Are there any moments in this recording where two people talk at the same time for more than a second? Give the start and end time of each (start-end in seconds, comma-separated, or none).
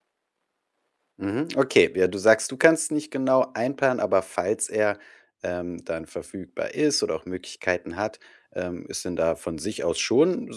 none